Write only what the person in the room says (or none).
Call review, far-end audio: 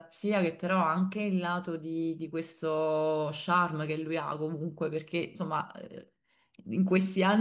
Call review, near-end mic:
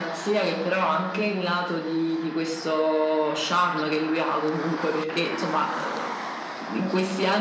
none